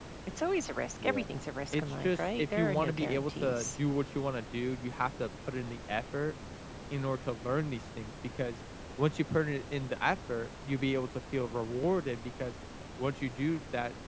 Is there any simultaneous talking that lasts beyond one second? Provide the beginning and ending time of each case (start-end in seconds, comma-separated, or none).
1.7-3.8